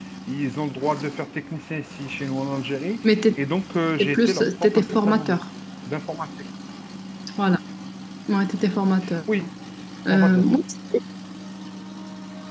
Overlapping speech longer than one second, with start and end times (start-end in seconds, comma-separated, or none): 4.0-5.4